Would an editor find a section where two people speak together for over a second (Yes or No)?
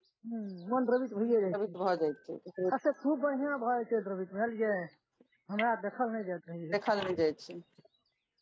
No